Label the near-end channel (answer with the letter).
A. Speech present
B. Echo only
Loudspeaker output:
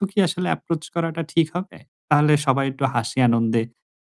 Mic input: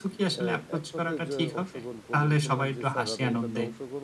A